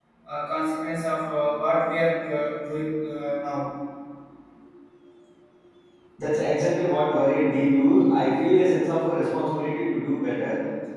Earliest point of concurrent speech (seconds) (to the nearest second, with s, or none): none